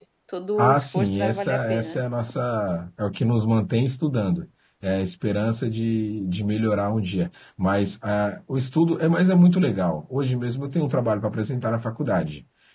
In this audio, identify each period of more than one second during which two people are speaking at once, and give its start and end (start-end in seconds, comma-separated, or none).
0.6-2.0